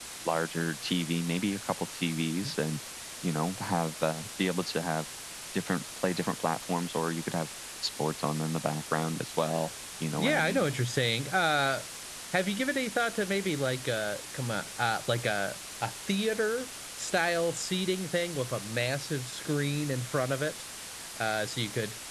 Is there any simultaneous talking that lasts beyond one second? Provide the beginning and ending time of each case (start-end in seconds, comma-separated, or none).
none